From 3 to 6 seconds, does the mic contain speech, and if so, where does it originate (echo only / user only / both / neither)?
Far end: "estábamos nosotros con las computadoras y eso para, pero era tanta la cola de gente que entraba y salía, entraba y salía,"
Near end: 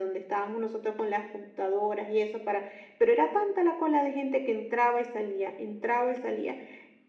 echo only